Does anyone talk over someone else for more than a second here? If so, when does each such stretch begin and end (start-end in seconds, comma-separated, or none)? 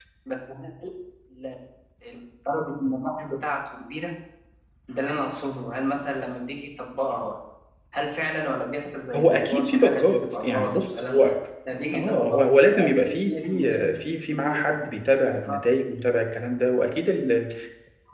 9.1-11.2, 11.9-13.9